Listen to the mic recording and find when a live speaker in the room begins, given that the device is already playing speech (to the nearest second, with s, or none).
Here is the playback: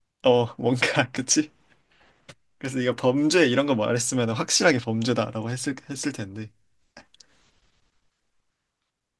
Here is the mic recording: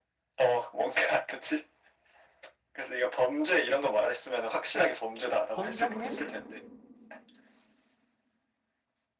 5 s